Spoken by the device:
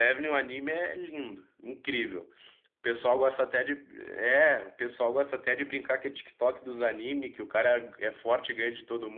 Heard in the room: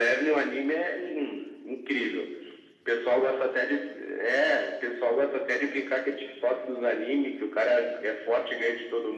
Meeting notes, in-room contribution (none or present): none